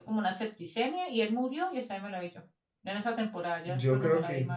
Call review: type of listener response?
taking over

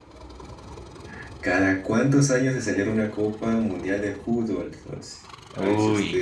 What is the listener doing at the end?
listening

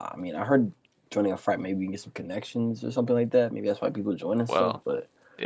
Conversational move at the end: taking over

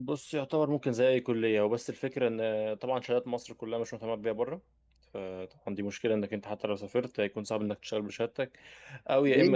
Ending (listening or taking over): taking over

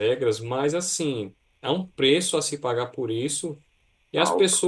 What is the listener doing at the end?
listening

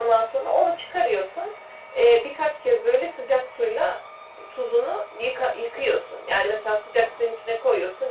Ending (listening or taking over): listening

